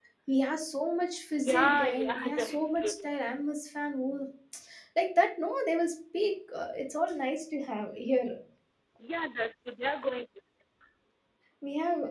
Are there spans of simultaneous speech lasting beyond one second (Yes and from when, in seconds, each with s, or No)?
Yes, from 1.4 s